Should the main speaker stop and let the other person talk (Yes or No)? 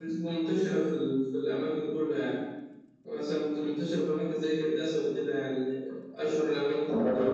Yes